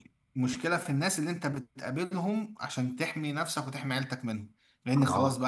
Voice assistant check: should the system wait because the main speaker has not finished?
Yes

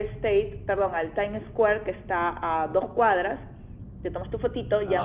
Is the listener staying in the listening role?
Yes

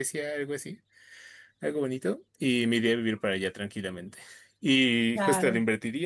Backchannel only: Yes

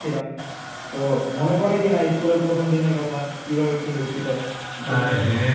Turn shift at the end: Yes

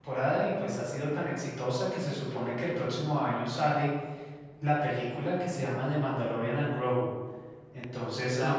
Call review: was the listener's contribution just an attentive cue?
Yes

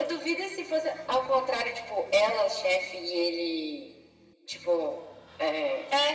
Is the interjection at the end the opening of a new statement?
Yes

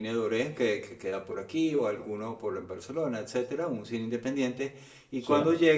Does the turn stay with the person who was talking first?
Yes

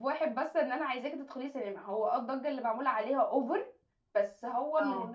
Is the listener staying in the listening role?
Yes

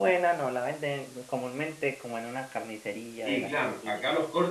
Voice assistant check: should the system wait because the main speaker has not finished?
No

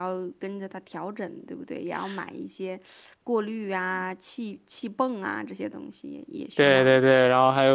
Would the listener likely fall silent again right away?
No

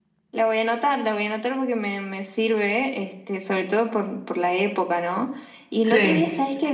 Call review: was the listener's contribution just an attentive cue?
Yes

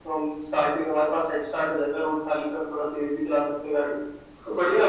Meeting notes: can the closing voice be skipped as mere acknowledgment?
No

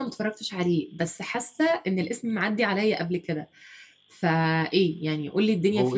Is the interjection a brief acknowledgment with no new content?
No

